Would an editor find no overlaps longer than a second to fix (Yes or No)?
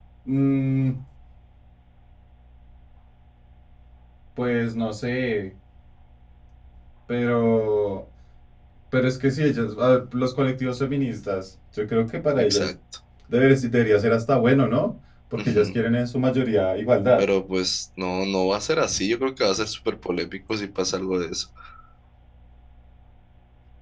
Yes